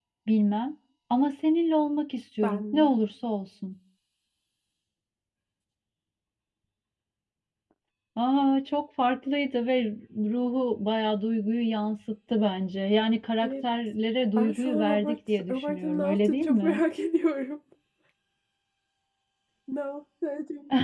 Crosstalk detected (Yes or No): Yes